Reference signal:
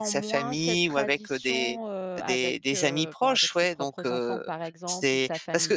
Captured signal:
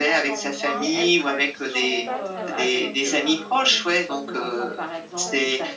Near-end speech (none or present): present